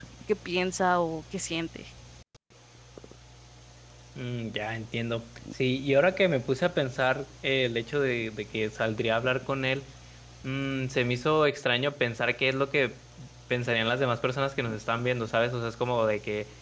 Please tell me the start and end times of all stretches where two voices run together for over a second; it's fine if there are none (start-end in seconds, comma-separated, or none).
none